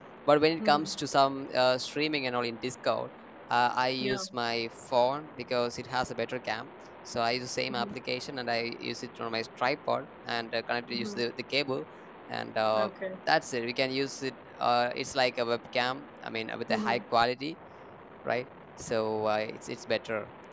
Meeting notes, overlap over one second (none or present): none